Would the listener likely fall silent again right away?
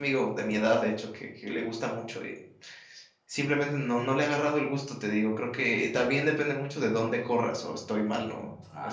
No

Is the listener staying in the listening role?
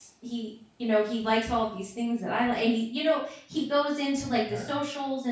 Yes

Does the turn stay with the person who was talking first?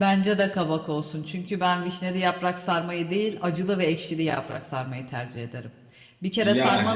Yes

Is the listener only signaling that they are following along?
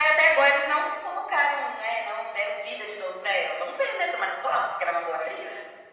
No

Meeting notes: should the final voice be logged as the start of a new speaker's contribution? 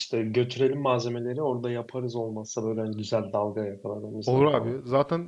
Yes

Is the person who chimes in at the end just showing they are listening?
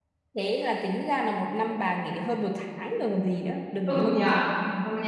No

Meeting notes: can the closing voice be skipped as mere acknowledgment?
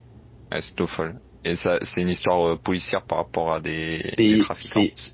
No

